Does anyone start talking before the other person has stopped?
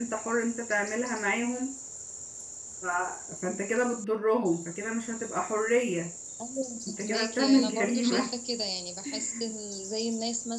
Yes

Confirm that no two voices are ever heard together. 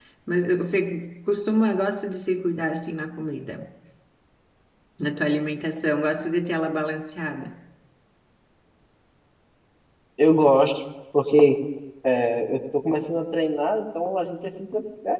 Yes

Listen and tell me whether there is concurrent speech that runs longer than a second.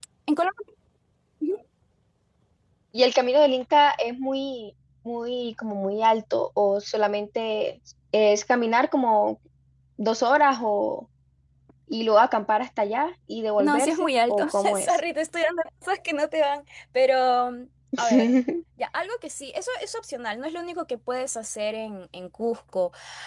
Yes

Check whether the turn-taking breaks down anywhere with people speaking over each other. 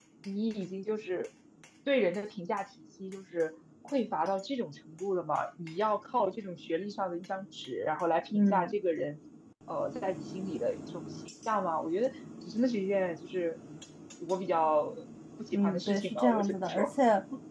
Yes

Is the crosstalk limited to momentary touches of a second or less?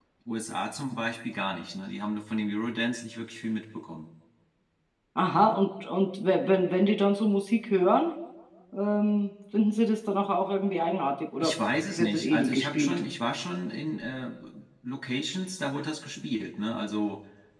No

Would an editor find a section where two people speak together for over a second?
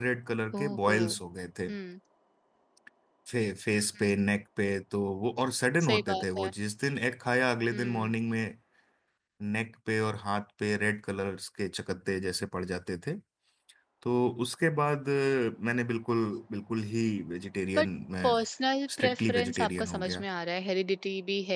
Yes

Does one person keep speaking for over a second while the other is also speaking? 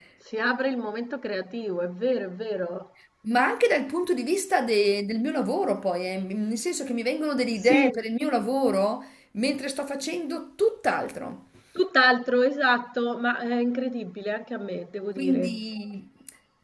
No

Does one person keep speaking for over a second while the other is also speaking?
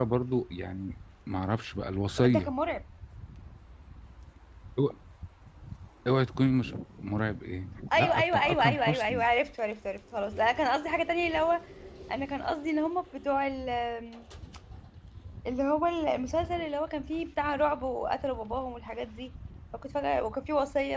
Yes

